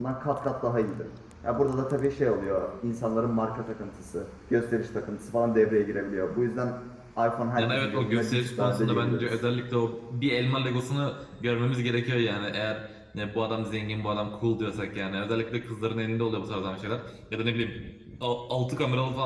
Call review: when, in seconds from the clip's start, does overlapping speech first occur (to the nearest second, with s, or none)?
8 s